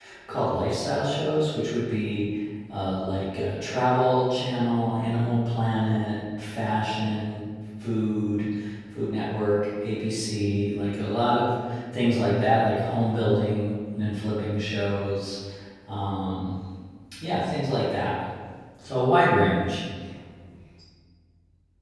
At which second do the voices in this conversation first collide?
none

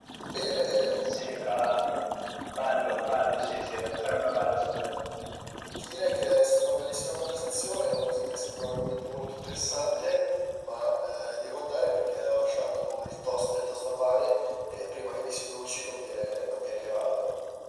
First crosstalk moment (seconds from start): none

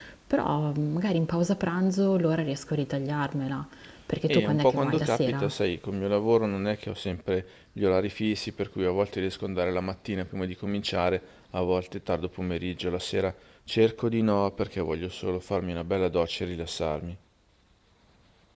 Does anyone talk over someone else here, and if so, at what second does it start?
4.3 s

